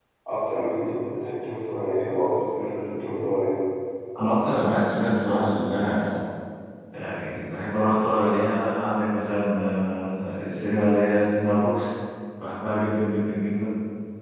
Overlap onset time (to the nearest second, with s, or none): none